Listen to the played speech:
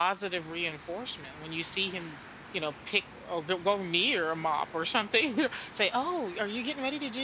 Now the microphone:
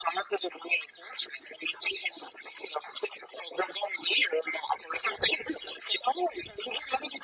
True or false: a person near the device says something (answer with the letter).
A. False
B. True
A